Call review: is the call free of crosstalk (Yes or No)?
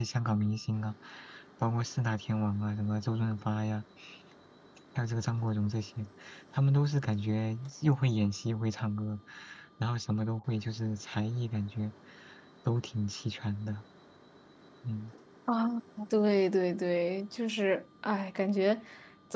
Yes